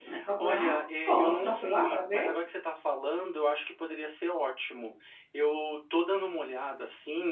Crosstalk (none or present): present